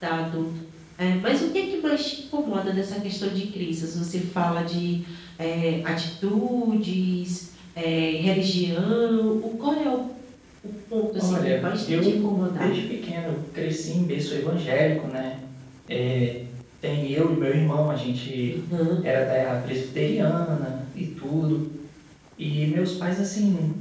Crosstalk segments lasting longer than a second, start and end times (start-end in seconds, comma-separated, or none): 11.2-12.7